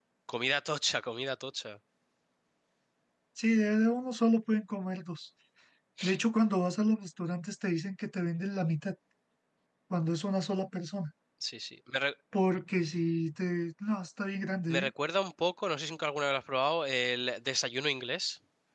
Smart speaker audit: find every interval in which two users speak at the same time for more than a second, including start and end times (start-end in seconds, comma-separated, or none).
none